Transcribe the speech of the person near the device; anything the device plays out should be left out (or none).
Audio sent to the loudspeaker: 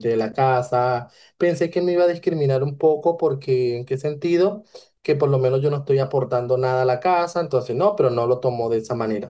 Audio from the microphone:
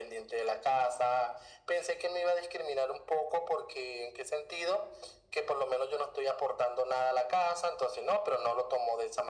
none